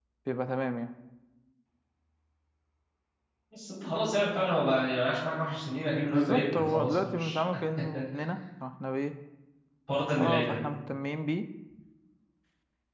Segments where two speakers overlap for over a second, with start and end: 6.1-7.4

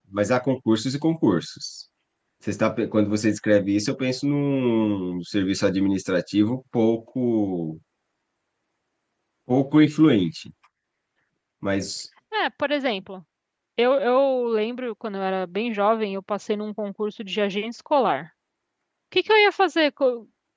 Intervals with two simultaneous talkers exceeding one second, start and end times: none

